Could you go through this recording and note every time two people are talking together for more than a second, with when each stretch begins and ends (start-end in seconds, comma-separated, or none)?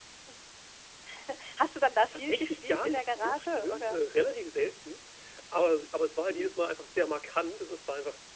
2.1-4.0